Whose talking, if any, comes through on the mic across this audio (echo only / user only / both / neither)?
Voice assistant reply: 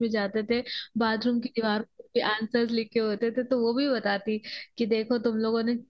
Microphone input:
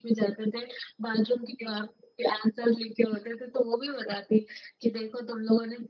echo only